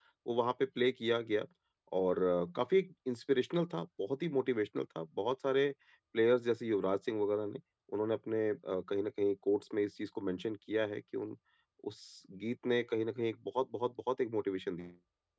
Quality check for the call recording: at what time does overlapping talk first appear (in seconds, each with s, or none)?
none